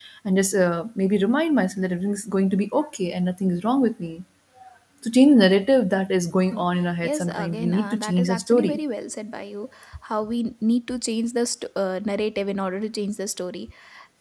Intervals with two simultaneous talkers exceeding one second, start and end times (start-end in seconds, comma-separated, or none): 7.0-8.8